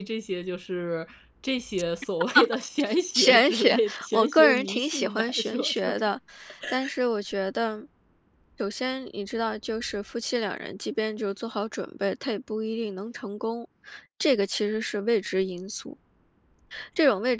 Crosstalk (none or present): present